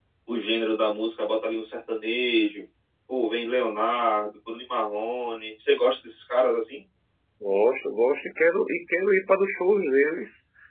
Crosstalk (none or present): none